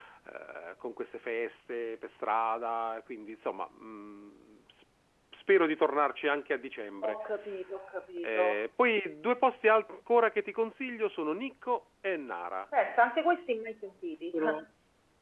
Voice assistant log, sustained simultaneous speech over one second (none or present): none